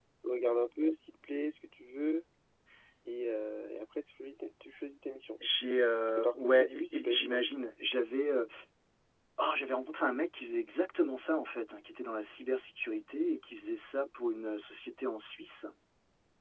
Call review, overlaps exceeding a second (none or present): present